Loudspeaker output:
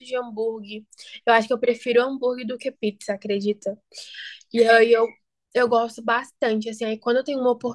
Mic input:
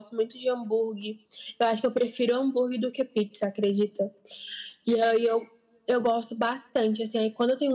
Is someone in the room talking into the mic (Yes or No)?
No